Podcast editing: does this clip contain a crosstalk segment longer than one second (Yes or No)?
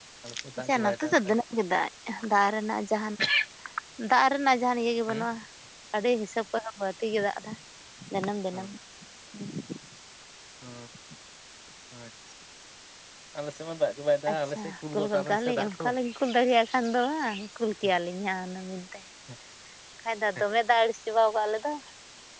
Yes